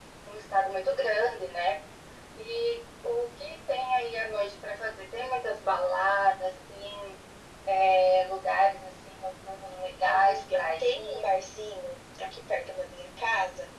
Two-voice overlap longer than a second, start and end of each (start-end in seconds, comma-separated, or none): 10.0-11.3